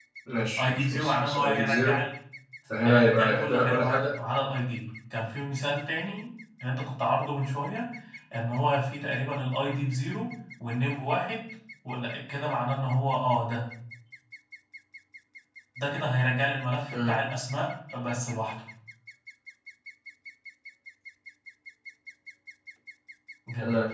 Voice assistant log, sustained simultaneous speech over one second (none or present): present